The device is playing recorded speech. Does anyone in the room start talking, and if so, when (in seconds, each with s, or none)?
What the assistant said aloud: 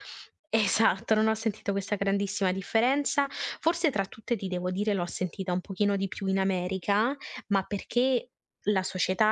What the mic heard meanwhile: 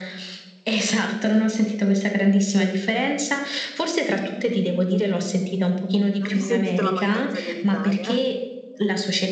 6.2 s